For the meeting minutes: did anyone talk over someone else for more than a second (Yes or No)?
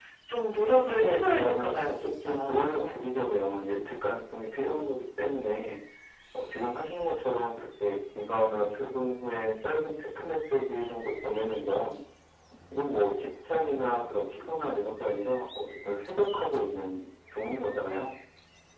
Yes